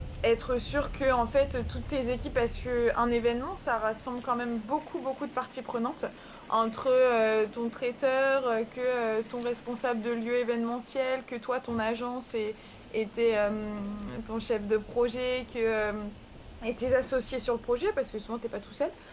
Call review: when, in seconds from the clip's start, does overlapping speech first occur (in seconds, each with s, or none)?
none